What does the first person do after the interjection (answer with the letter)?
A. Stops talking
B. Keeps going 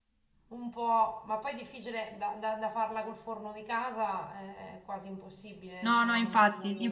A